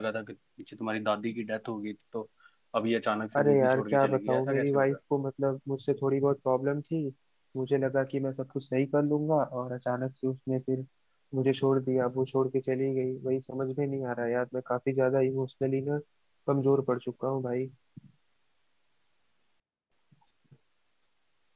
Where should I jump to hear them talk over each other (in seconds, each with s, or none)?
3.4 s